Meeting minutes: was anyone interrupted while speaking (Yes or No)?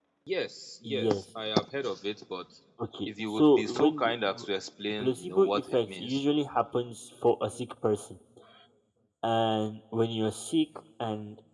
Yes